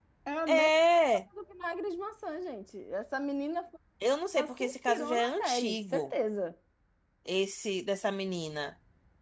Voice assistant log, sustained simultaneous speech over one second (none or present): present